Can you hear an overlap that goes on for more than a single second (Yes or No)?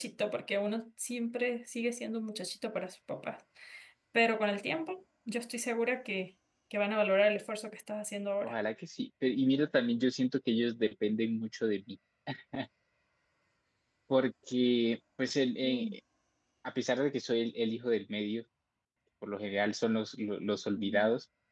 No